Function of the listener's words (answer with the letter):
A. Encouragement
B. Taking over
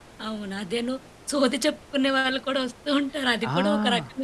B